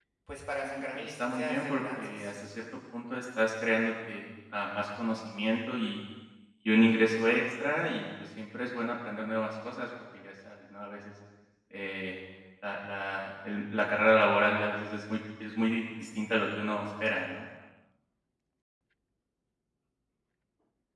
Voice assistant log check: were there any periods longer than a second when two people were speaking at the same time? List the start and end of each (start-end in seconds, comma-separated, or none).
0.6-2.3